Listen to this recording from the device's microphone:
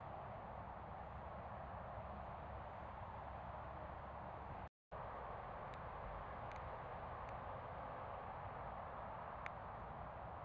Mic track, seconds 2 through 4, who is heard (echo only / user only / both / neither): neither